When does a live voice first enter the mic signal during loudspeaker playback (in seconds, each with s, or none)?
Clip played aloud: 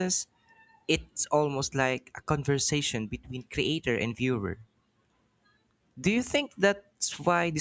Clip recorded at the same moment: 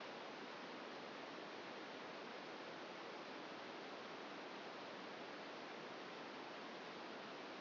none